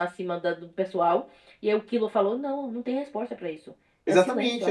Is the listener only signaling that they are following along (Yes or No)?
No